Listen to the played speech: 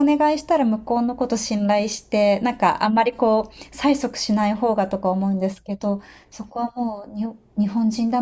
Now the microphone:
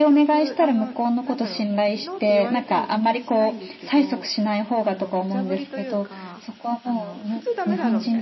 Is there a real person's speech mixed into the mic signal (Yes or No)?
Yes